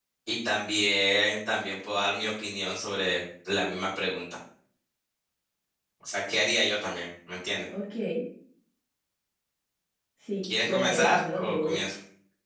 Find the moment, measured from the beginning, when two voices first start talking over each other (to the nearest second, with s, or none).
10 s